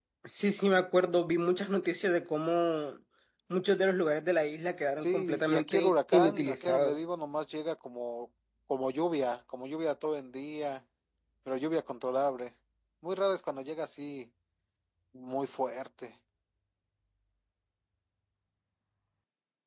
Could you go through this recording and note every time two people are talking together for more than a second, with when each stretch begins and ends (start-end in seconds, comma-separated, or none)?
5.0-7.0